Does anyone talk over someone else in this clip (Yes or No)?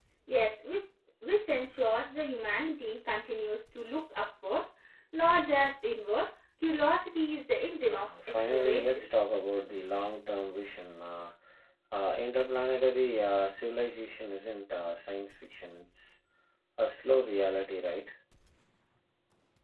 Yes